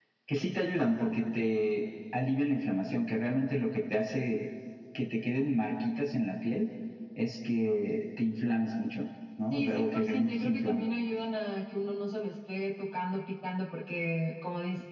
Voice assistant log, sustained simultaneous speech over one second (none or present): present